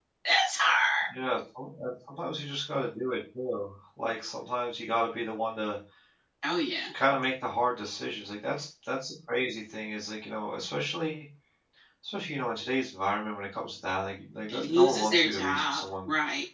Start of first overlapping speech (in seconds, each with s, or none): 14.5 s